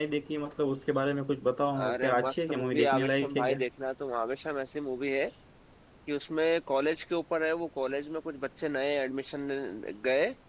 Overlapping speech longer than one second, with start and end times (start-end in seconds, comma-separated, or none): 1.9-3.6